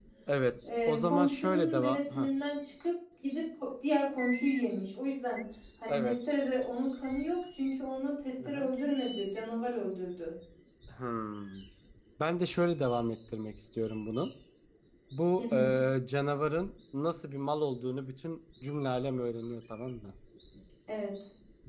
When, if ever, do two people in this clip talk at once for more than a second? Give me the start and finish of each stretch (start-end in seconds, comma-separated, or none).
0.9-2.3